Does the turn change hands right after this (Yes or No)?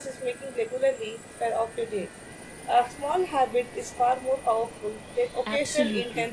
Yes